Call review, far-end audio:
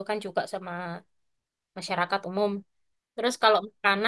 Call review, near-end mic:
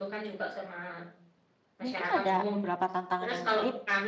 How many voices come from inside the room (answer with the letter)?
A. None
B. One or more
B